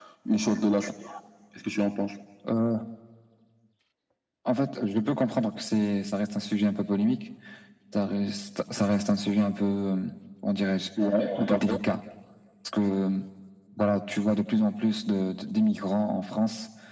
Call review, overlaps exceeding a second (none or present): none